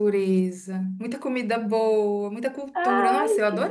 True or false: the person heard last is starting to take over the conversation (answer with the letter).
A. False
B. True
A